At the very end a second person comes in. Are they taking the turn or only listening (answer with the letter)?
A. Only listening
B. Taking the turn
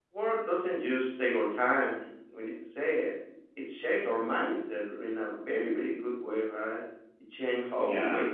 A